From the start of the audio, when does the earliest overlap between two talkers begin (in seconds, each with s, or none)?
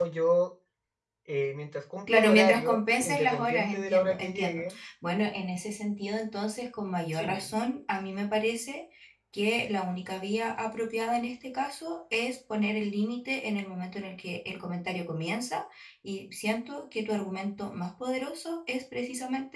2.1 s